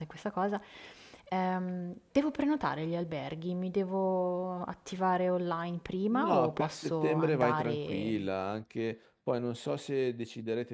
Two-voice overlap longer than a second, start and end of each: 6.1-8.3

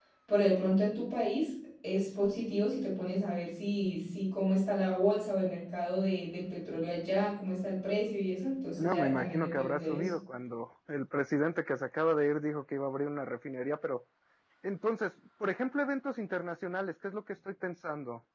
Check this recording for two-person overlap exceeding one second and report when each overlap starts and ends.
8.7-10.1

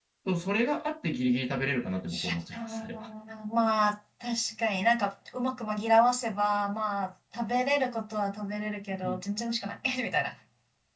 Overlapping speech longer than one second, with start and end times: none

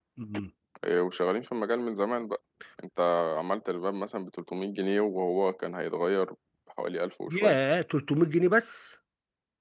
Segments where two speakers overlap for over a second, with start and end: none

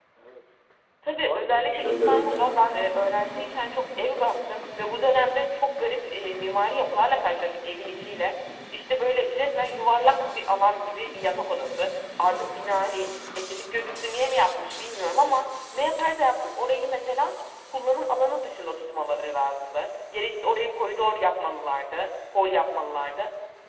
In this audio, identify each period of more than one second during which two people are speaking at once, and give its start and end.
1.2-2.5

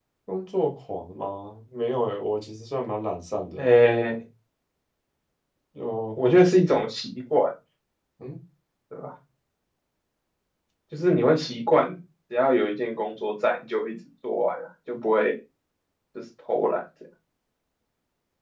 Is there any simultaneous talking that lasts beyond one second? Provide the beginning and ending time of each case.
none

